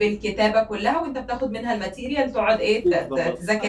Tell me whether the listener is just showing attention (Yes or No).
No